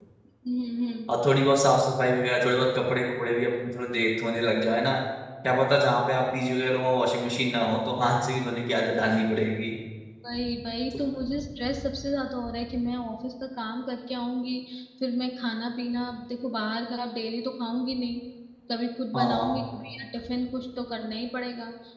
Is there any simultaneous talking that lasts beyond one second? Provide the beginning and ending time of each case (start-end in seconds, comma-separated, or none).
none